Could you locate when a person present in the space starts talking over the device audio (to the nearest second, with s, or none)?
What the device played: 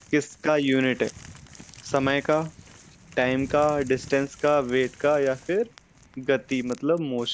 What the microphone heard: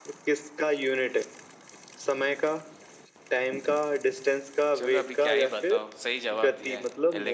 5 s